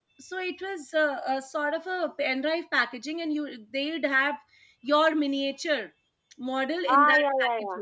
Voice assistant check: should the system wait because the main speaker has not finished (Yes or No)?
No